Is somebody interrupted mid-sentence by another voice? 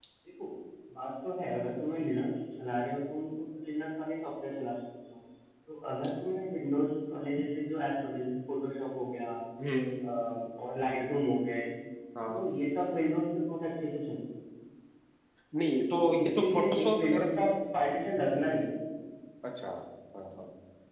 Yes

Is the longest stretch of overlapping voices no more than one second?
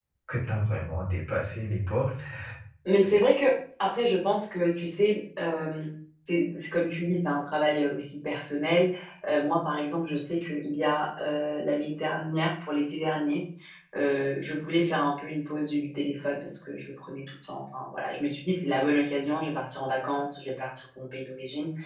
Yes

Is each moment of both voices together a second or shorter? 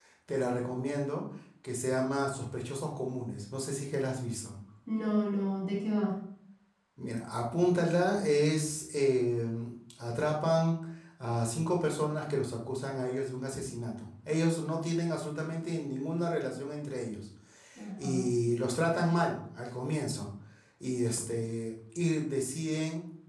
Yes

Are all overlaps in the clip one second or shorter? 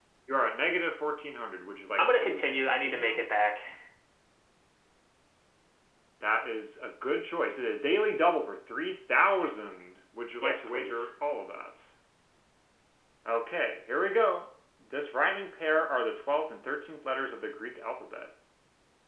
No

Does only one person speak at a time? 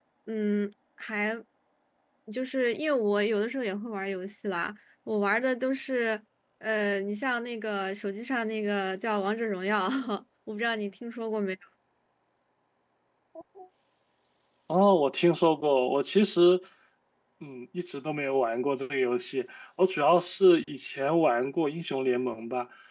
Yes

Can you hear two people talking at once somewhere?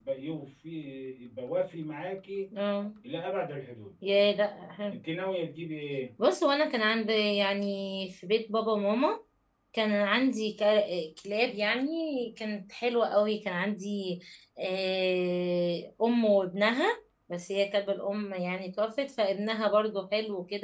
No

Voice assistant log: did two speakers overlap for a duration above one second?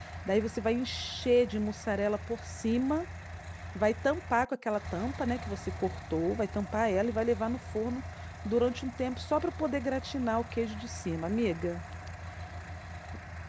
No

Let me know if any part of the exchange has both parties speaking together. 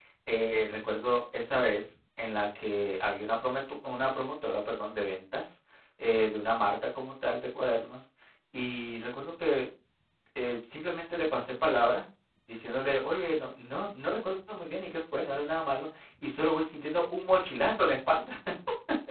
No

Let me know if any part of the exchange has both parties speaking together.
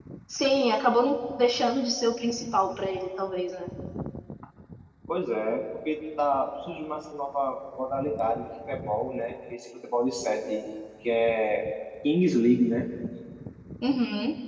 No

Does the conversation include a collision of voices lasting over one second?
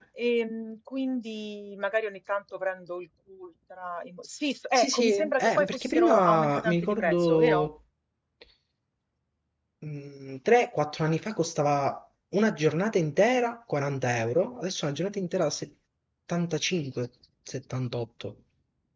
Yes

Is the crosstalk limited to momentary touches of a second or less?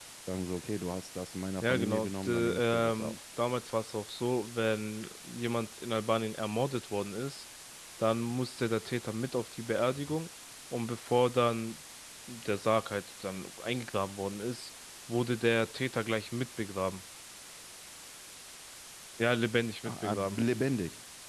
No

